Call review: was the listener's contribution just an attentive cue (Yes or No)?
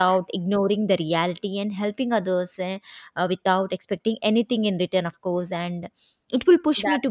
Yes